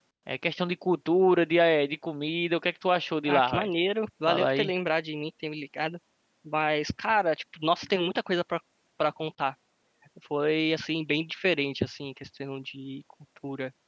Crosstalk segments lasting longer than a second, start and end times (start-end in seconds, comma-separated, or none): none